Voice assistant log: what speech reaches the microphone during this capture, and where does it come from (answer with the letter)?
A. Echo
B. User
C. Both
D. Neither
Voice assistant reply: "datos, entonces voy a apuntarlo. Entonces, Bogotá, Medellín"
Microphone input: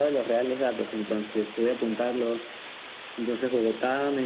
A